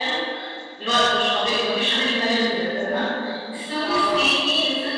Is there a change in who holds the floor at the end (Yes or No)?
No